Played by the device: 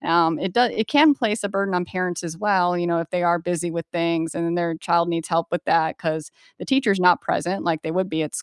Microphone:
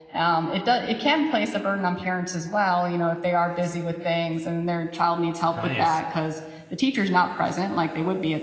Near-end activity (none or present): present